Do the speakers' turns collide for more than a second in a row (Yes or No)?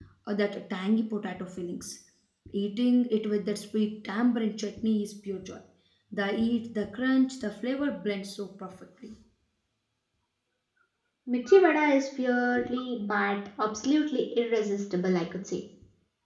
No